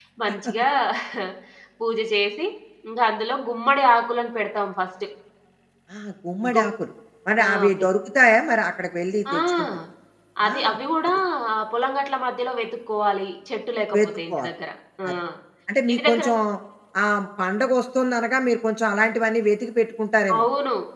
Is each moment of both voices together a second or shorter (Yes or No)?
Yes